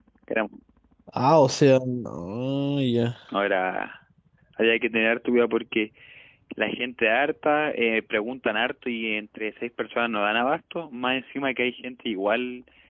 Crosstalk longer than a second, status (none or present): none